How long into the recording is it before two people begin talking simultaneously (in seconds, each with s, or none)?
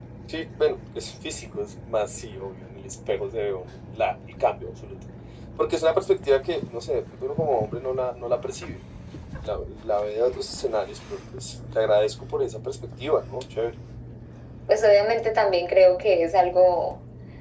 none